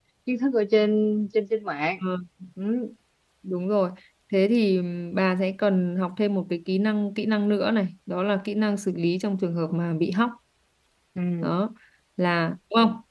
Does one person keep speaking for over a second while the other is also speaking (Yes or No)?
No